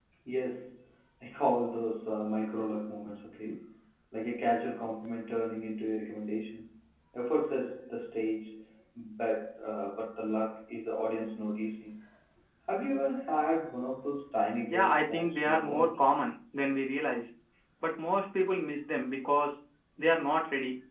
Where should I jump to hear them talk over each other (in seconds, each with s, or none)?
14.7 s